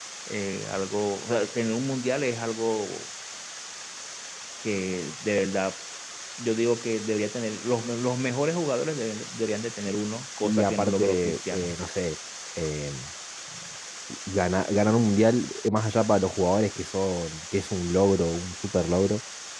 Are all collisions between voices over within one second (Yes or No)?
No